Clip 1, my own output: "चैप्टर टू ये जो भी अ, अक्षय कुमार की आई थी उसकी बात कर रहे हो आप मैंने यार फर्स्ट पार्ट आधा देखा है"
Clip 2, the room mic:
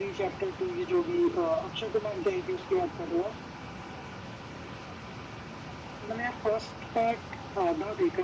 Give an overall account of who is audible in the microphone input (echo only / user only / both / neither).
echo only